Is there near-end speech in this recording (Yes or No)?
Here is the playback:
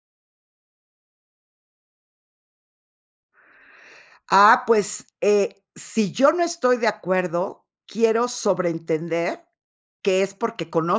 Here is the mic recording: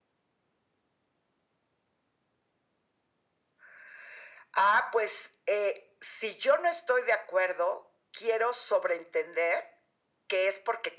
No